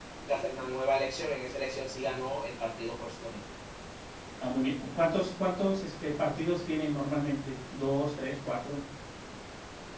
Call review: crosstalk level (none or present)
none